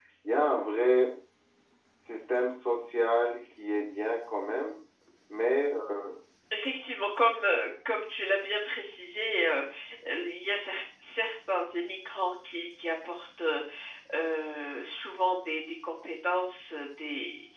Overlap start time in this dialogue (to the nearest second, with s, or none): none